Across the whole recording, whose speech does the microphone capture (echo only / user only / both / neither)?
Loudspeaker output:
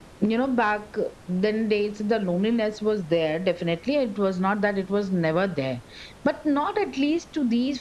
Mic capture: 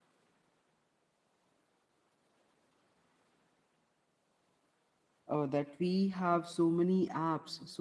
user only